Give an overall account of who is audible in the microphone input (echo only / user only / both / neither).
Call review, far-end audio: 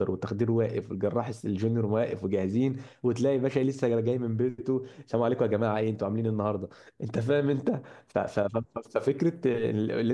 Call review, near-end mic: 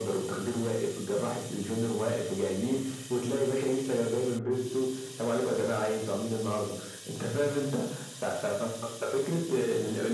echo only